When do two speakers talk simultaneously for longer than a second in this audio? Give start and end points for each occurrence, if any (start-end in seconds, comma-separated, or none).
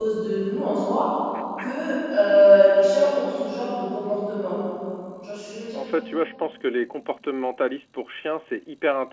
none